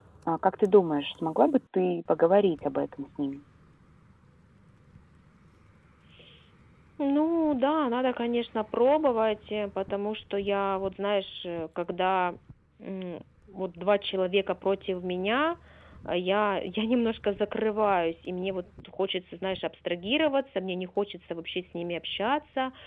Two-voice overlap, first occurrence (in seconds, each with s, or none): none